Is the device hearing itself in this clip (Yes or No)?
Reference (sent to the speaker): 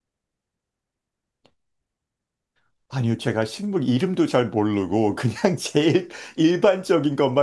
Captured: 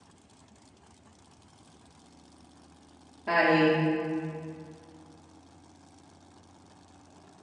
No